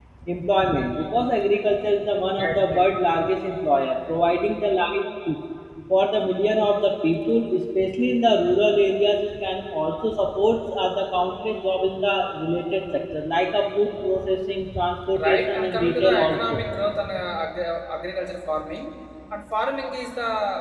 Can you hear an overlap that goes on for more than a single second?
Yes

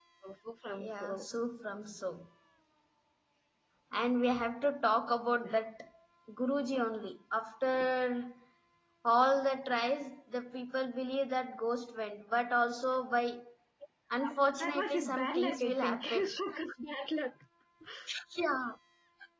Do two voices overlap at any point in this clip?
Yes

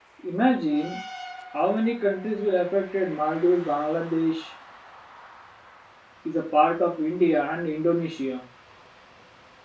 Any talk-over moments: No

